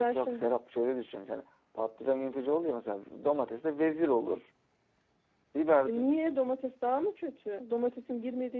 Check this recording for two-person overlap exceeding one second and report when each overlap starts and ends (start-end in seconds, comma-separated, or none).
none